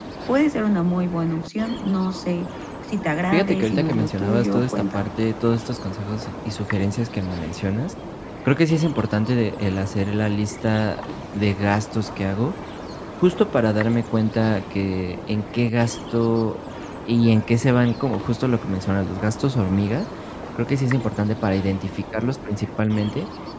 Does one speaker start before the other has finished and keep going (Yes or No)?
Yes